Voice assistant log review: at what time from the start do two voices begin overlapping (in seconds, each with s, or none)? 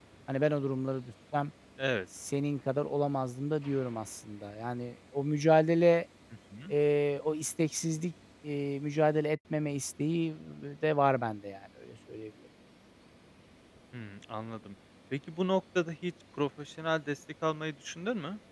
none